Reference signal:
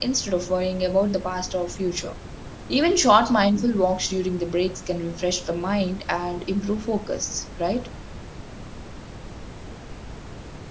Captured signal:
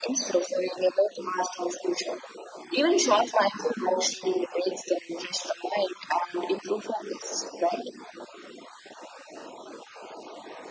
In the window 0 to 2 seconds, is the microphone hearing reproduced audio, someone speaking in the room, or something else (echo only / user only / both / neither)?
echo only